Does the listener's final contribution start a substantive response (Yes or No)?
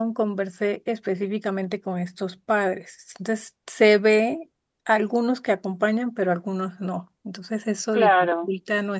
No